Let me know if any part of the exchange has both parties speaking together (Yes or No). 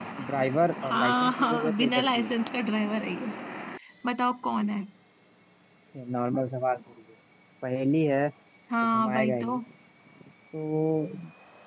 Yes